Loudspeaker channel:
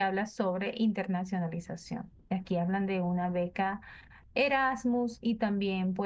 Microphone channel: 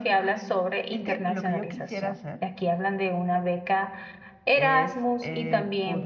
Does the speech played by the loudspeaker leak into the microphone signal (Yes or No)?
Yes